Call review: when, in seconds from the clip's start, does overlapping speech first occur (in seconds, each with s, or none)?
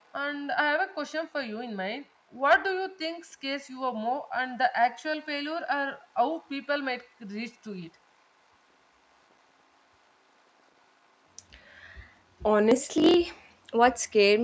none